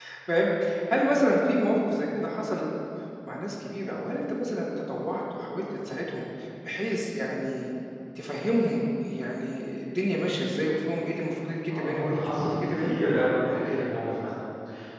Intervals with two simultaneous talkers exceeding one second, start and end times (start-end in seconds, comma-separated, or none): 11.7-13.0